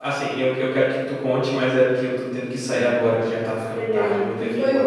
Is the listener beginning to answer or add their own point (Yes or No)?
Yes